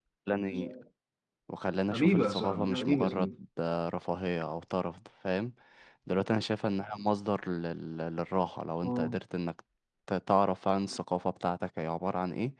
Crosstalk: present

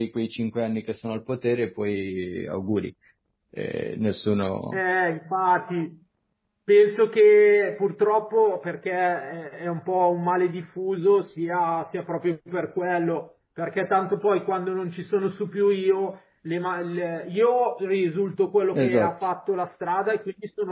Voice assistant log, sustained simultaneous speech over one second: none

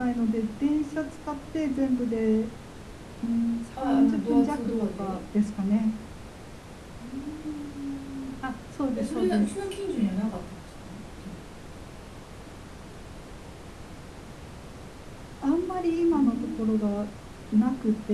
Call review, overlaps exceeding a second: present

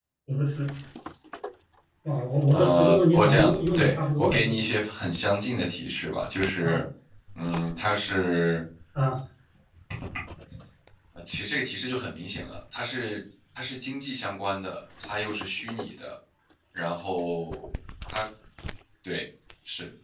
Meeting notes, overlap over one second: present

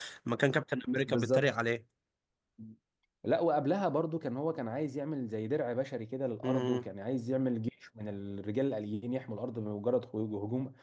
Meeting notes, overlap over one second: none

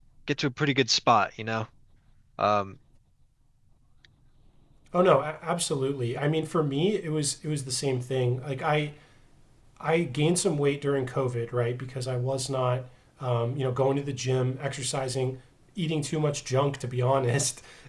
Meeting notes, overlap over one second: none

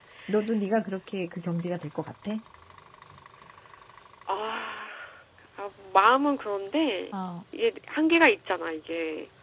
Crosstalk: none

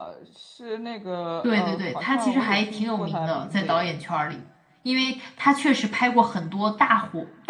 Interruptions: present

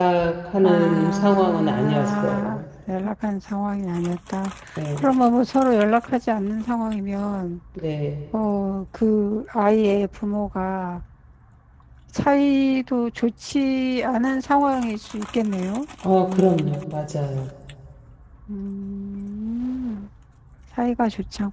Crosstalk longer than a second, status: present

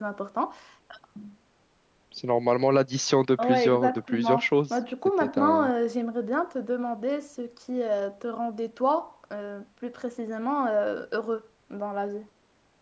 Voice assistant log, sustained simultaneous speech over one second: present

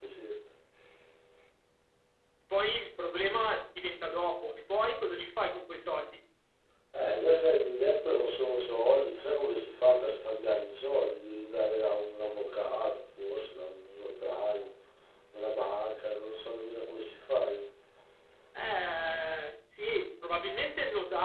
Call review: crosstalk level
none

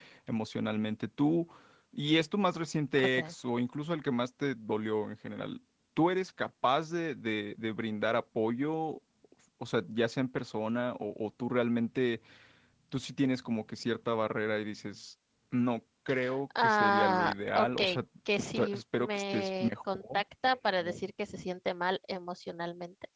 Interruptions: present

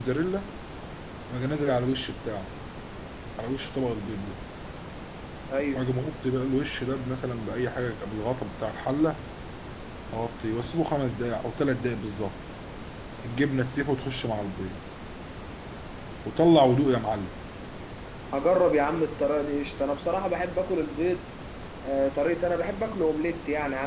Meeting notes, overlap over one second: none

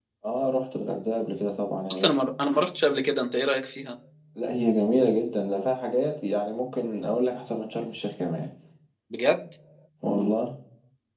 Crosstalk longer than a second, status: none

